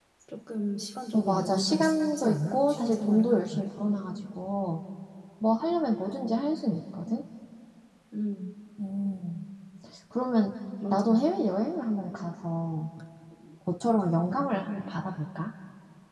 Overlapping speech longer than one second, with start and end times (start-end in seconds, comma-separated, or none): 1.1-3.7